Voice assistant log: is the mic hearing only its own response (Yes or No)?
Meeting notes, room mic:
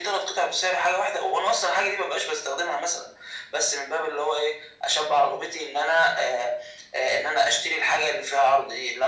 Yes